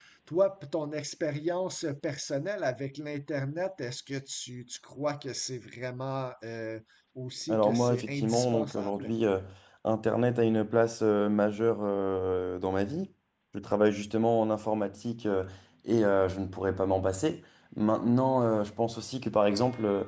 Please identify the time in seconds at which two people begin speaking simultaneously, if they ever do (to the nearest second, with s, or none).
7 s